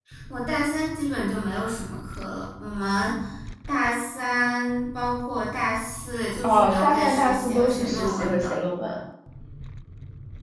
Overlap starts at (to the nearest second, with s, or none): 6 s